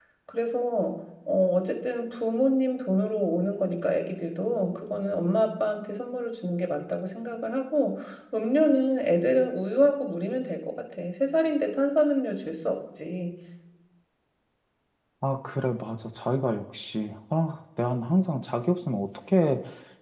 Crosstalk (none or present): none